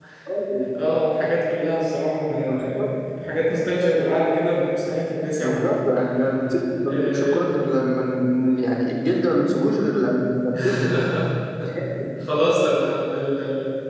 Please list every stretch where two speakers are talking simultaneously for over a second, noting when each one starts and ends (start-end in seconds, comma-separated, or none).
none